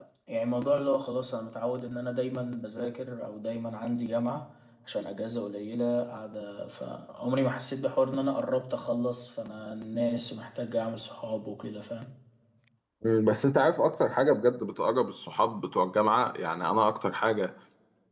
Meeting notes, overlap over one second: none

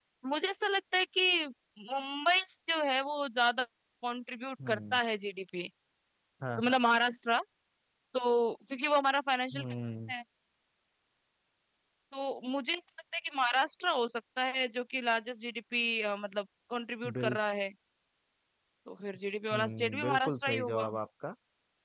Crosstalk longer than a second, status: present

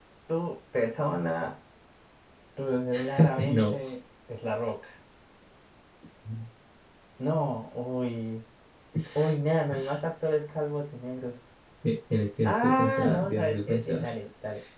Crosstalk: present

